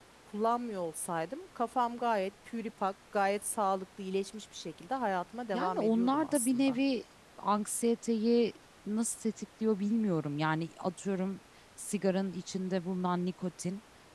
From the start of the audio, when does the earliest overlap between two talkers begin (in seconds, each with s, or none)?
5.5 s